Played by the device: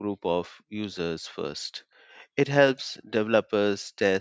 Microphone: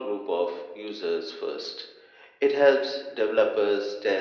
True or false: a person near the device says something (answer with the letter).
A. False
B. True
A